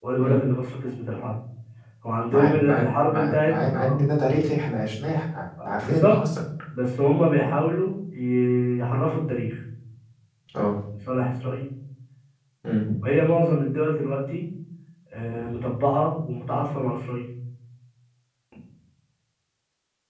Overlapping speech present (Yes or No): Yes